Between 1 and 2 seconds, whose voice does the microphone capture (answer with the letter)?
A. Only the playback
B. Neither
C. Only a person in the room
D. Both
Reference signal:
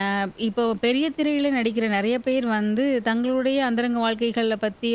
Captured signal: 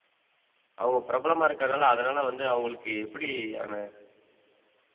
C